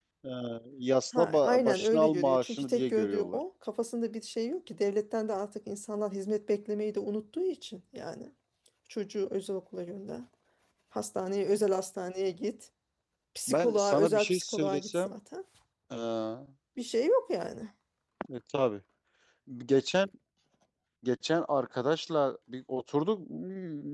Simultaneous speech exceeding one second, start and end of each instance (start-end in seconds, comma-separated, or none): 1.1-3.4, 13.5-15.1